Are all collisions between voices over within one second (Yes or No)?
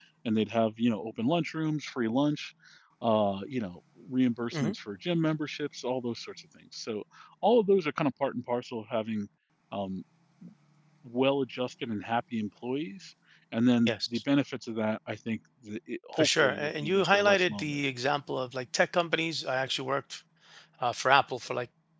No